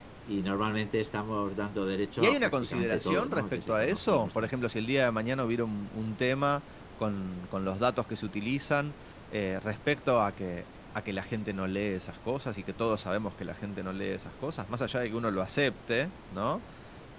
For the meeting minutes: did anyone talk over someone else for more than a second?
Yes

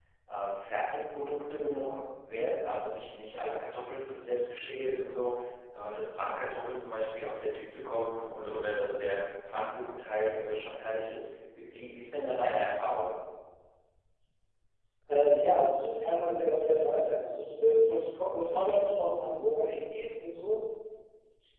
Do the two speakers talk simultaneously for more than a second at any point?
No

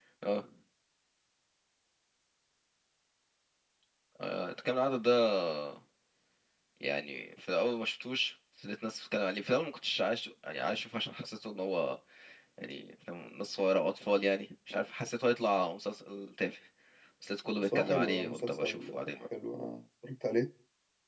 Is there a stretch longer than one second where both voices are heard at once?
Yes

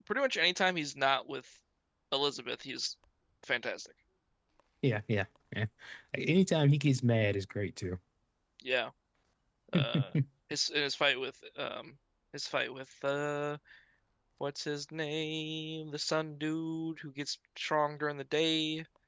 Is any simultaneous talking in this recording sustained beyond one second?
No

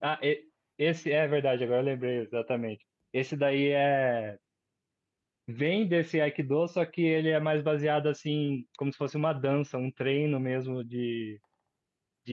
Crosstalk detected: No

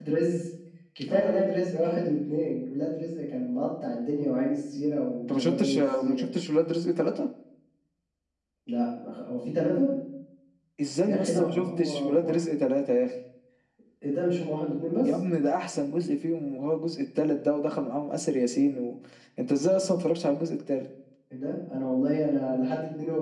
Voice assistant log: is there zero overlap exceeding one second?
No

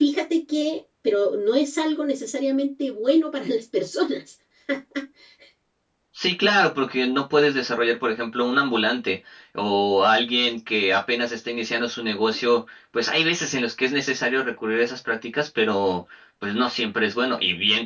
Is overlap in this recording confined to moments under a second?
Yes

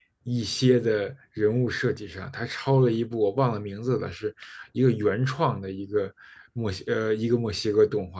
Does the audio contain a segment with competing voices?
No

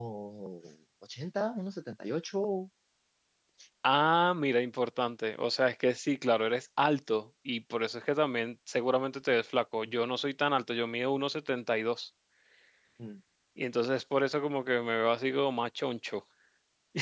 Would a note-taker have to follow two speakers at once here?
No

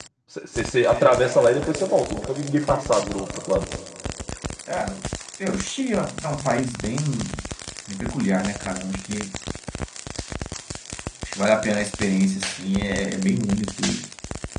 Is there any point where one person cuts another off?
No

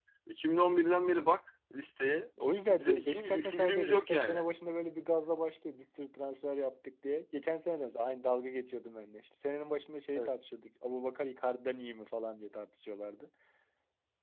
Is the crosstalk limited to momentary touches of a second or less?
No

